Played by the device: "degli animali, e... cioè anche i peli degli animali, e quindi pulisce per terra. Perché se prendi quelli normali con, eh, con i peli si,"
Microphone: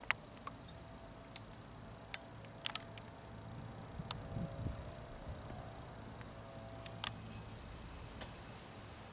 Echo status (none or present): none